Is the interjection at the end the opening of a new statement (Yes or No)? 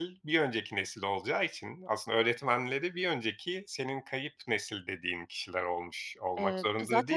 Yes